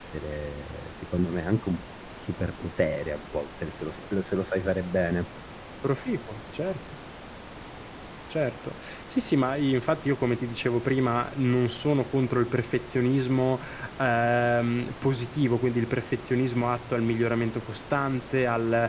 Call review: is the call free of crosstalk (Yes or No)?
Yes